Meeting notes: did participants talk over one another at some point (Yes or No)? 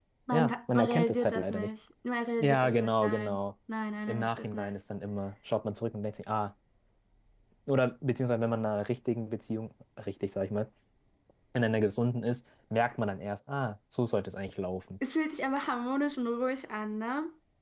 Yes